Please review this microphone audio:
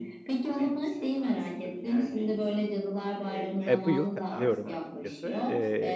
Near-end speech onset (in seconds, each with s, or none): 3.7 s